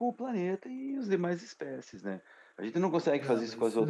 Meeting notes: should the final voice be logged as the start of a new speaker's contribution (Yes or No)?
No